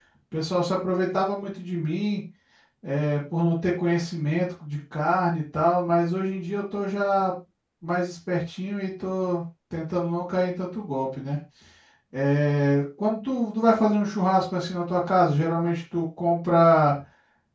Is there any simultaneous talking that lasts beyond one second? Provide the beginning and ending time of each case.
none

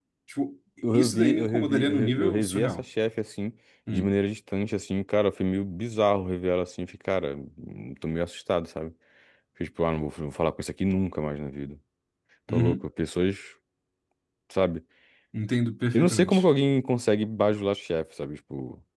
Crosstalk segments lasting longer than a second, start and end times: 0.9-2.8

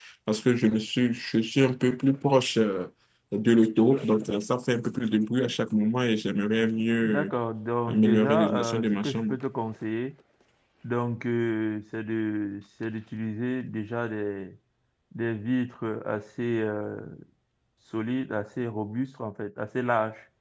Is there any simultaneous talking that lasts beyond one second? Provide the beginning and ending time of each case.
7.9-9.4

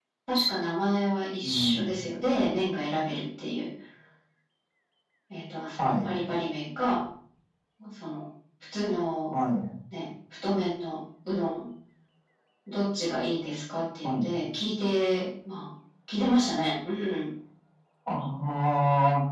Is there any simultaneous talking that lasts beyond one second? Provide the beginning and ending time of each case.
none

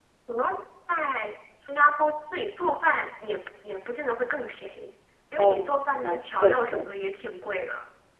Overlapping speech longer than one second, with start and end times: 5.4-6.9

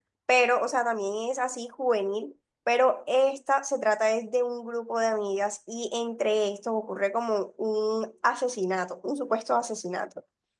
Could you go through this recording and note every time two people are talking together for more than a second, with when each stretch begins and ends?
none

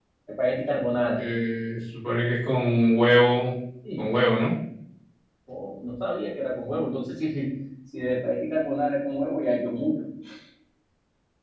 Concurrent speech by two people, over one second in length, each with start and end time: none

